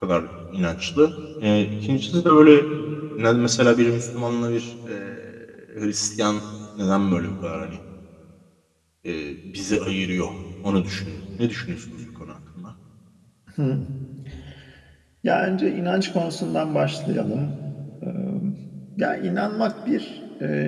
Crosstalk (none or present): none